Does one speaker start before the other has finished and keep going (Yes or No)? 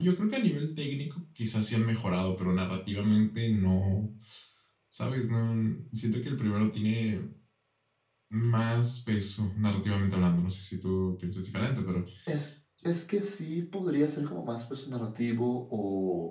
No